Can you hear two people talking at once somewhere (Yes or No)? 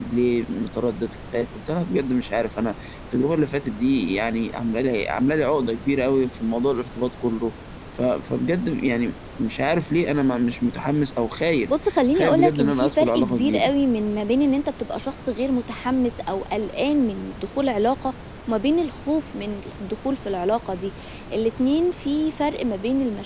Yes